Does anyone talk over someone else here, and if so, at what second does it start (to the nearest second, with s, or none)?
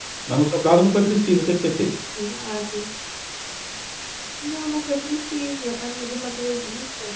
none